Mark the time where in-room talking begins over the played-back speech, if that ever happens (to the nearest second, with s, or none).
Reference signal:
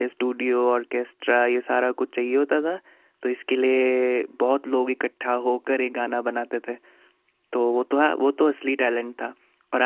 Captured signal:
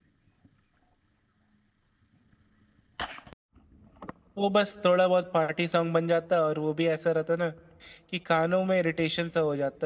4 s